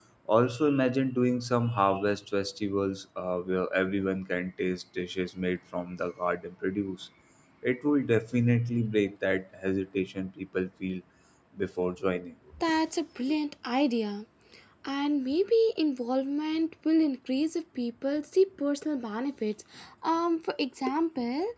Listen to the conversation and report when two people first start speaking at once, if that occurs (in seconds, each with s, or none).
none